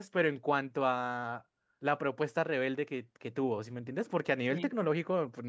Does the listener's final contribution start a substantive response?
No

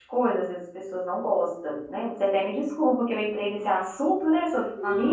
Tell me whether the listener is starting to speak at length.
Yes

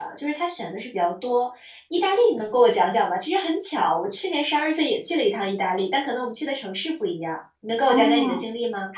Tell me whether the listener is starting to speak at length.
Yes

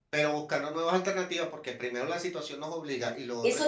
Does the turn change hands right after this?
Yes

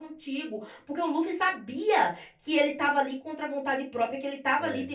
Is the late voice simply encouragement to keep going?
Yes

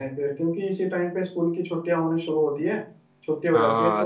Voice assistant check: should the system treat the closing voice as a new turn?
Yes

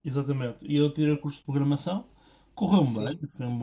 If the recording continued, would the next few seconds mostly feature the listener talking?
No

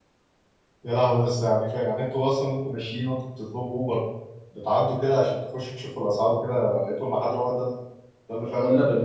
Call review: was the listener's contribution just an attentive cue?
No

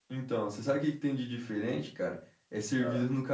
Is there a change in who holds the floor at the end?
No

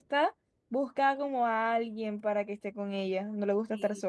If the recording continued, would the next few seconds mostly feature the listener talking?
Yes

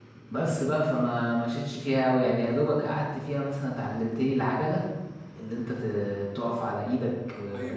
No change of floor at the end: Yes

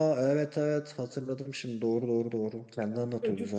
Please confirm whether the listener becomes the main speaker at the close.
Yes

